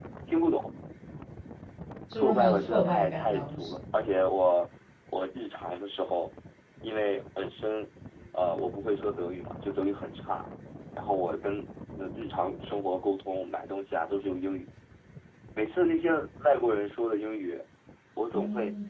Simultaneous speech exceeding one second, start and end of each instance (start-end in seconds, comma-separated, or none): 2.2-3.7